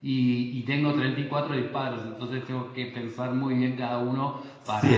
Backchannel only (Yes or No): No